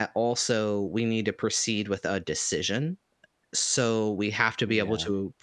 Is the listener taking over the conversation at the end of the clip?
No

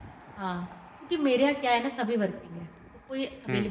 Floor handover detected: No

